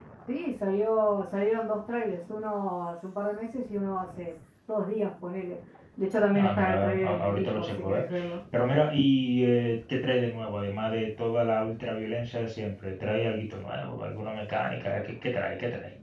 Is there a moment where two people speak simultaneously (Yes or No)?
Yes